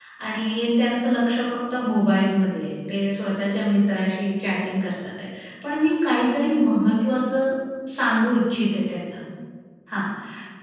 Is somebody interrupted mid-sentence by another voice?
No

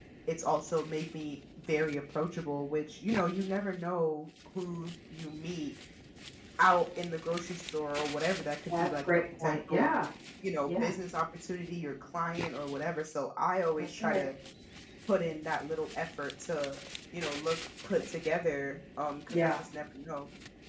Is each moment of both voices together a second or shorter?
No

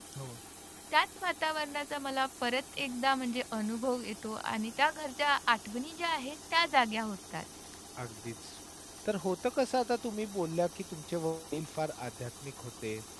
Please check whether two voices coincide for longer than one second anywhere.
No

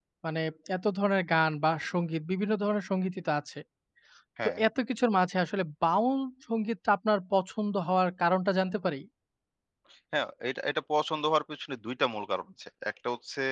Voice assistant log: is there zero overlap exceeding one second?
Yes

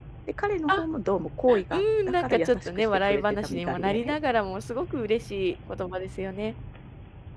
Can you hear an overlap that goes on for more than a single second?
Yes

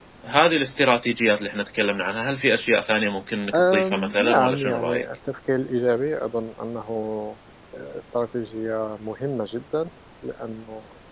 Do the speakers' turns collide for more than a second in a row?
Yes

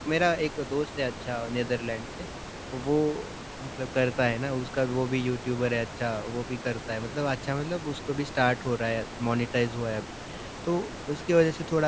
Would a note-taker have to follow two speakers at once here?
No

